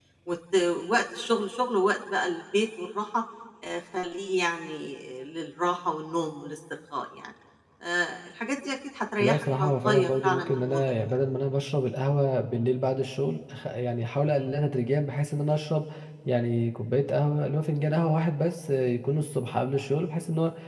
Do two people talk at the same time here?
Yes, from 9.2 s

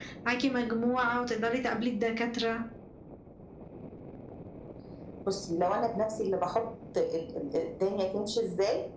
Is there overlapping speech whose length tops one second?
No

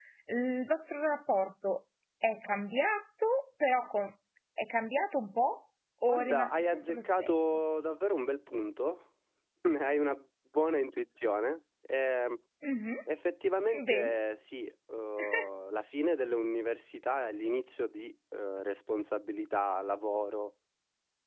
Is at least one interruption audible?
Yes, from 6.1 s

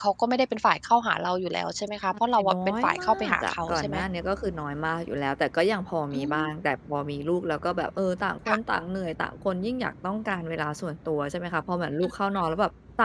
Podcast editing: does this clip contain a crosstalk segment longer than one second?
Yes, from 2.1 s

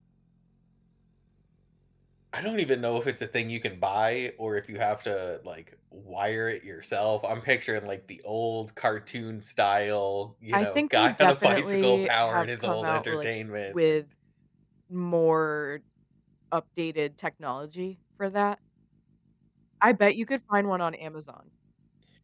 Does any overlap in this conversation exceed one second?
Yes, from 10.5 s

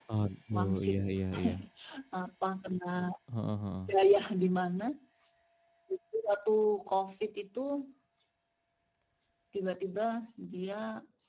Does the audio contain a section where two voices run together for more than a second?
No

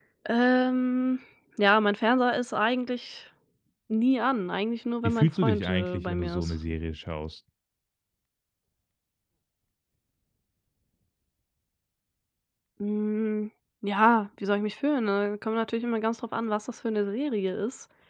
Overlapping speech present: Yes, from 5.0 s

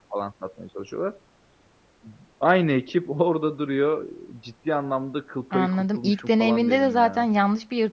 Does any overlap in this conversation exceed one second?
Yes, from 5.5 s

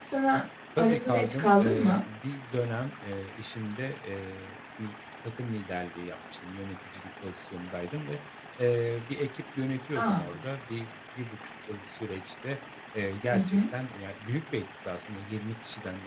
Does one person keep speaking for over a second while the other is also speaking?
Yes, from 0.8 s

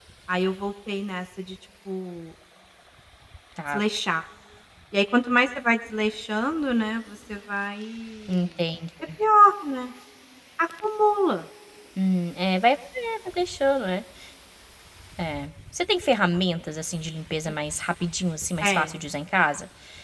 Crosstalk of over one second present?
No

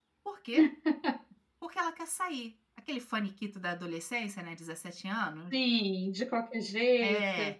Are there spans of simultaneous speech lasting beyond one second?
No

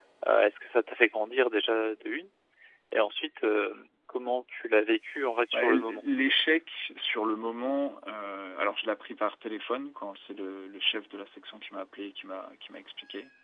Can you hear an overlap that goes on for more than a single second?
No

